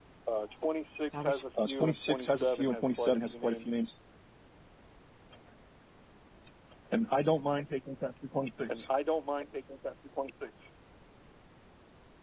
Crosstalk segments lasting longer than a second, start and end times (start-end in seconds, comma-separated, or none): 1.1-3.8